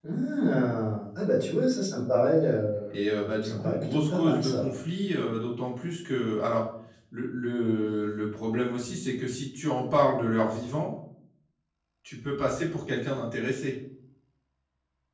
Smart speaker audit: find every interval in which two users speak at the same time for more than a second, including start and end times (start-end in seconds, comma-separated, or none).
3.4-4.7